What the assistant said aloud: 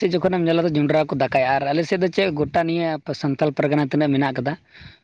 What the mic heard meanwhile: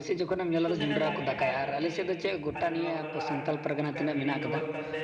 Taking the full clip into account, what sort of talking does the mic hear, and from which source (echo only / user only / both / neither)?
both